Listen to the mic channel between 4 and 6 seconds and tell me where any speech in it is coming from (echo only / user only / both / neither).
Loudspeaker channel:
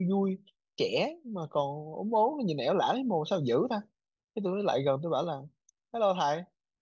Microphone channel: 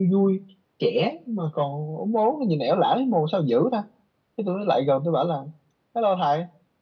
echo only